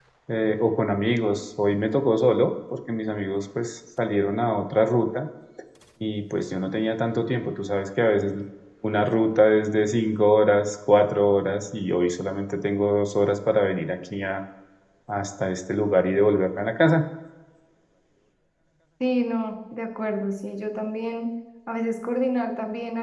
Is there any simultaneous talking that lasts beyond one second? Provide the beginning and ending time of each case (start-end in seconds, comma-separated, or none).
none